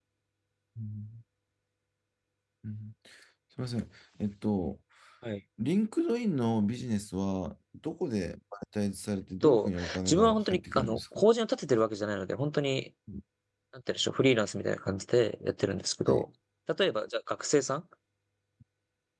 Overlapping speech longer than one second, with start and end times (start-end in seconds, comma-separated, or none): 9.4-11.0